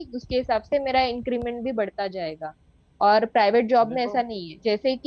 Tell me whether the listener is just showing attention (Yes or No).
Yes